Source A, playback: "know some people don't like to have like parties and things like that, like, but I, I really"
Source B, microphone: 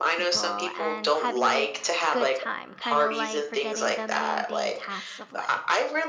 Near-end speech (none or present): present